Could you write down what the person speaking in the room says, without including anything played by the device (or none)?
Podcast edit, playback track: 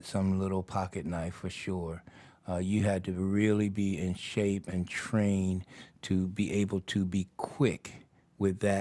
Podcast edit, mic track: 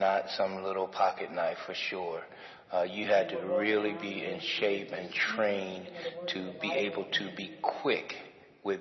and we're walking around and we're s- we're, we're speaking you know the words of the bible and